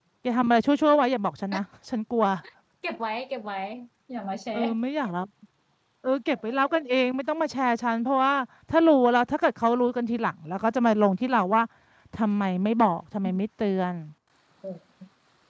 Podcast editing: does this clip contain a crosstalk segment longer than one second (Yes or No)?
No